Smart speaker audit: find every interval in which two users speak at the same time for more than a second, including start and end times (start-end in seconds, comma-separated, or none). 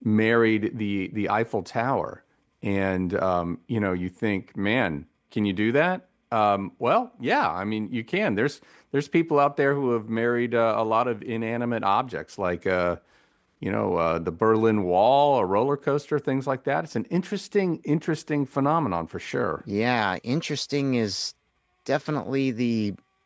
none